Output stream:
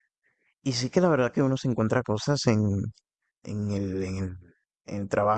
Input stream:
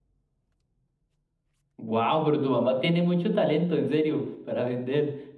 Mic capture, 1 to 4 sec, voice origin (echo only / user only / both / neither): user only